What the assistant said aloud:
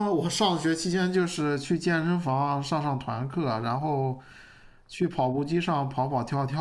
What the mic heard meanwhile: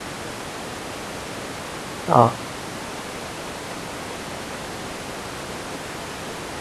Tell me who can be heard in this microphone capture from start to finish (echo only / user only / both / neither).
user only